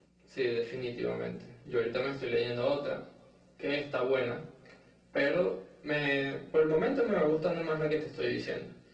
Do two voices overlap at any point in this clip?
No

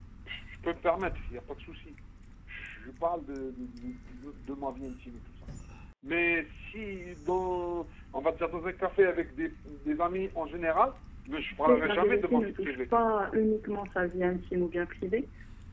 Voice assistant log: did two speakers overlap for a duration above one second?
Yes, from 11.5 s

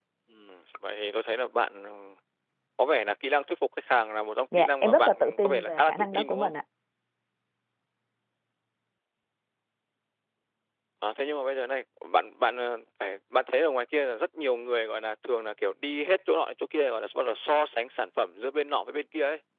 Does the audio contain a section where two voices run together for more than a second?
Yes, from 4.5 s

